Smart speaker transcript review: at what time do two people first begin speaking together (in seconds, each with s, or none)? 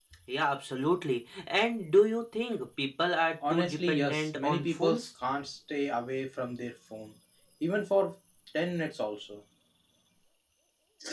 3.4 s